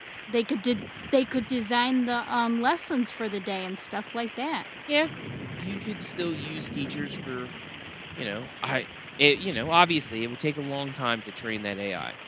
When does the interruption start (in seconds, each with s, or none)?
none